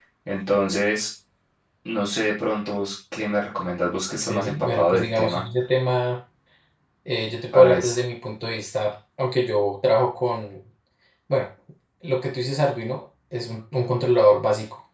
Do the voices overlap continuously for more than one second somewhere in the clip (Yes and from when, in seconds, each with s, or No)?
Yes, from 4.2 s